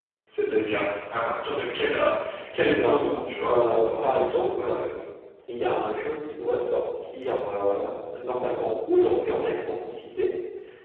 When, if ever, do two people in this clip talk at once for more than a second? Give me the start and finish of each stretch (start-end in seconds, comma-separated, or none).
3.4-4.8